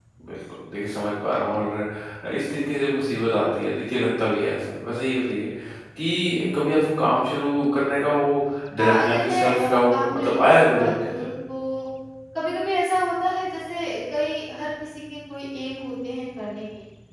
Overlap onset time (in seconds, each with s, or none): 8.8 s